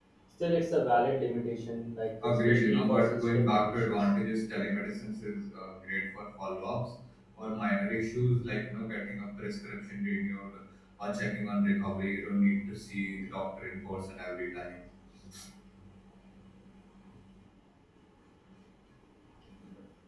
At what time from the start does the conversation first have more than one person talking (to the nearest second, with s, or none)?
2 s